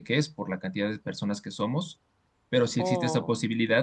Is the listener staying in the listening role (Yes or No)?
Yes